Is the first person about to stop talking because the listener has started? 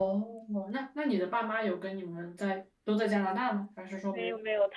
Yes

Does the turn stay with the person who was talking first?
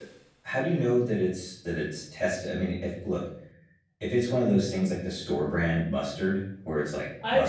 No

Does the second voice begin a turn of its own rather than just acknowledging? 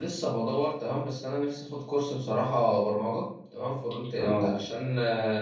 No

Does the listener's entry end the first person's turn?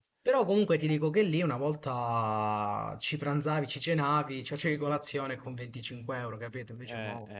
Yes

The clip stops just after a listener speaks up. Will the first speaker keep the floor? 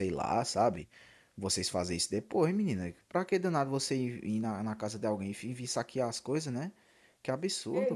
No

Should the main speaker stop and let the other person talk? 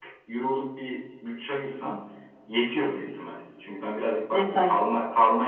No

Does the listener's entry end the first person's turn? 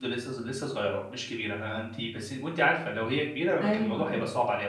No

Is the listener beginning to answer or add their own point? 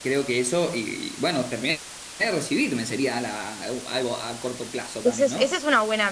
Yes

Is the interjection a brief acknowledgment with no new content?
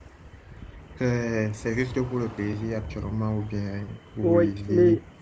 No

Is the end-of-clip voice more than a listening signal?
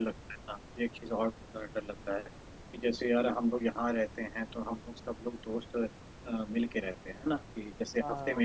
No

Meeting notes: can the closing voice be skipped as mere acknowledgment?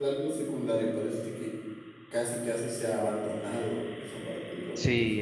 No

